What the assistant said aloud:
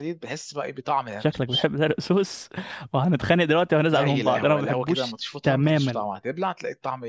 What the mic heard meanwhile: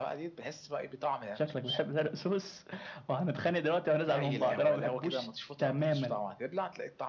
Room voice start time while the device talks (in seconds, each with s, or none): none